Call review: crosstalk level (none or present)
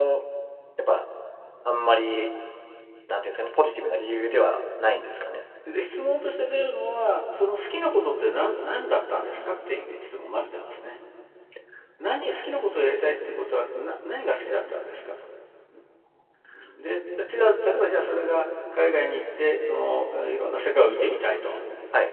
none